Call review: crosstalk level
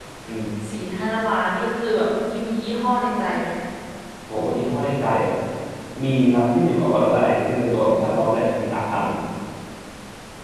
none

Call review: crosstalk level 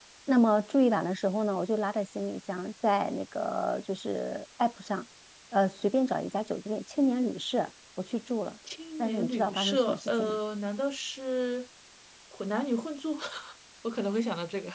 present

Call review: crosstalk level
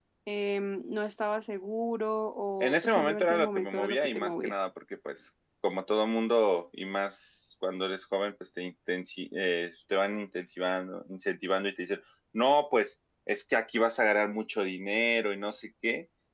present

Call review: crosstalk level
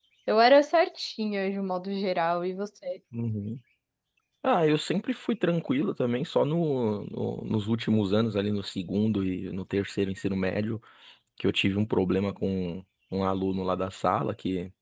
none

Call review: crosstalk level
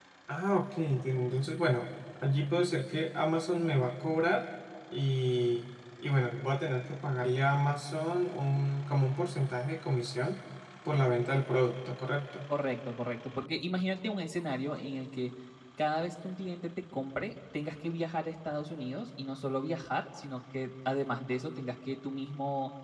none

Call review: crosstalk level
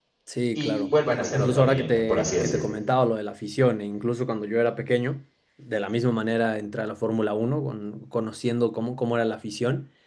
present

